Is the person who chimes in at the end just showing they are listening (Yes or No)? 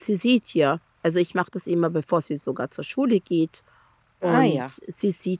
Yes